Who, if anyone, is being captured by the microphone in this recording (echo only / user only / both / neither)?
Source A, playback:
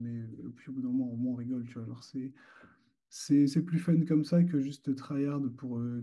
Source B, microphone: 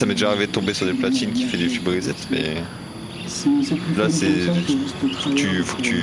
both